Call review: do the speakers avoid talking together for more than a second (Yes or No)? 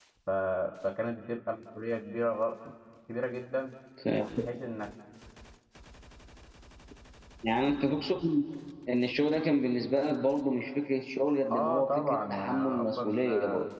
No